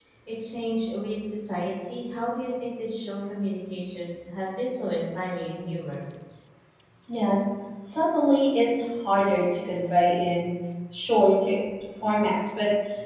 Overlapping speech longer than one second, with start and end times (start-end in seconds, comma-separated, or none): none